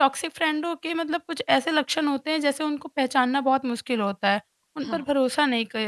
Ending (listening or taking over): listening